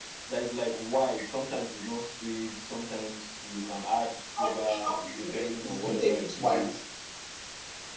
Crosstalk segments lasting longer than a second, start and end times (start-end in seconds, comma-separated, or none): 4.4-6.7